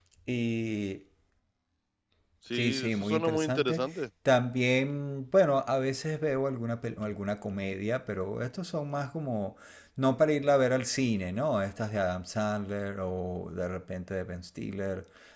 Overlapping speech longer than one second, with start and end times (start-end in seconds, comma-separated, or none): 2.5-3.8